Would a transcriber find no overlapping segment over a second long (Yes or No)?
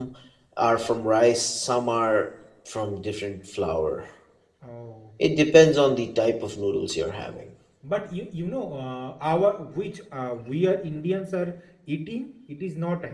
Yes